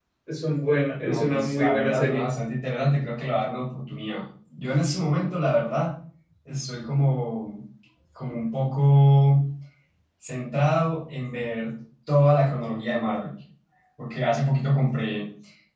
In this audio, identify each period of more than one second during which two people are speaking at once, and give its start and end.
1.0-2.2

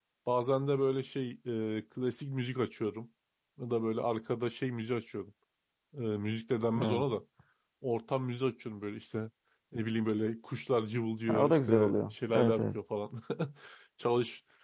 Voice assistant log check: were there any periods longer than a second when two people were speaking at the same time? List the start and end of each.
11.3-12.8

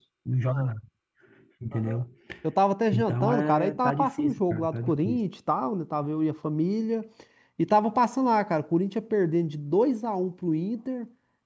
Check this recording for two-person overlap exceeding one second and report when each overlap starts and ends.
2.9-5.2

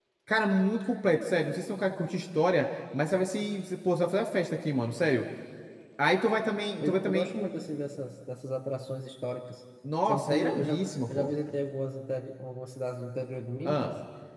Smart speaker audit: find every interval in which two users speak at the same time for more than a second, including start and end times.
10.0-11.3

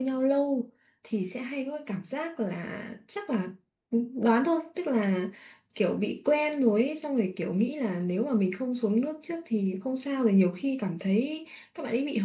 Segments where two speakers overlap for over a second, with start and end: none

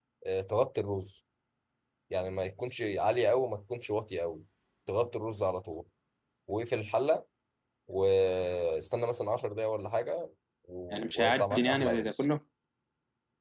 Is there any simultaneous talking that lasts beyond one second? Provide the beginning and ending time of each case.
10.9-12.2

